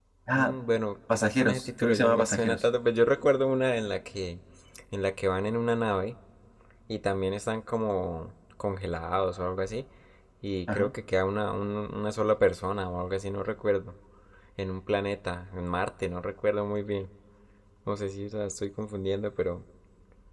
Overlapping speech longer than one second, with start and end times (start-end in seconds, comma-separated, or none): 1.1-2.6